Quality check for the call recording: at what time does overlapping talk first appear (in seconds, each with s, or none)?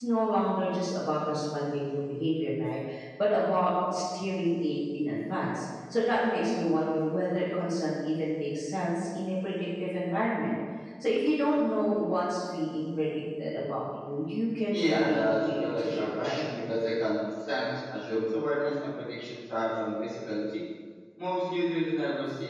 14.7 s